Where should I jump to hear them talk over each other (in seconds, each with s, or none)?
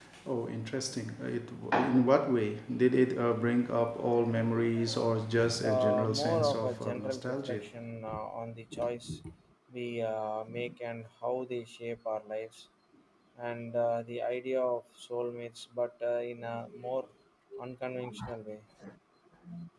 5.6 s